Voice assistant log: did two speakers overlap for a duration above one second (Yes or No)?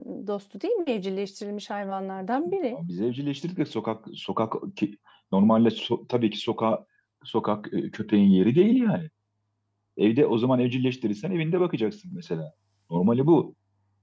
No